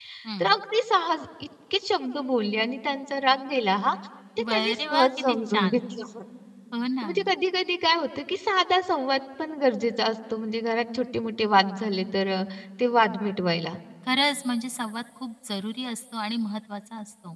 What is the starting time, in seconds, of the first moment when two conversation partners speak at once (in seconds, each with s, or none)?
4.5 s